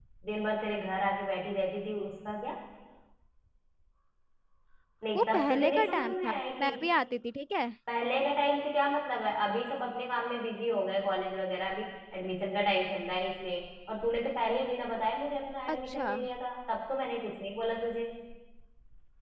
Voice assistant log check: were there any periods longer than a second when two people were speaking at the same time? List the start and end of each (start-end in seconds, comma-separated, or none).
5.2-6.7